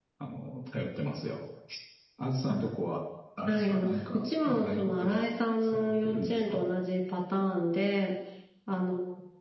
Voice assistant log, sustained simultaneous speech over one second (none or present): present